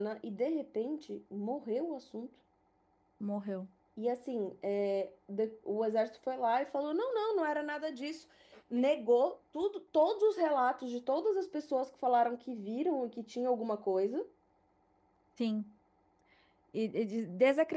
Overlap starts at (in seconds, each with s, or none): none